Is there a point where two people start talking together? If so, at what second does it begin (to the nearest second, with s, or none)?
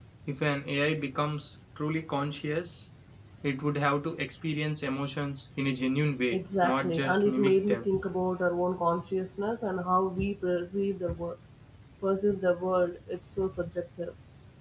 6 s